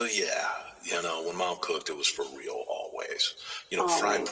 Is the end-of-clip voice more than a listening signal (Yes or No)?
No